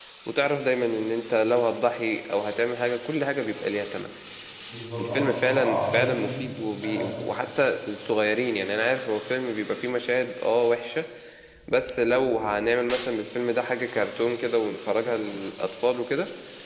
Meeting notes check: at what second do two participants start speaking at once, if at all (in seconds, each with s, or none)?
5.0 s